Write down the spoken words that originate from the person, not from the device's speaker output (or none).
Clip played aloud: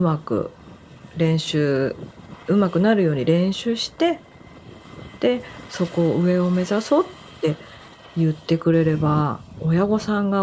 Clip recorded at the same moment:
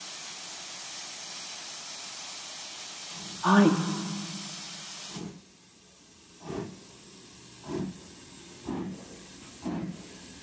はい。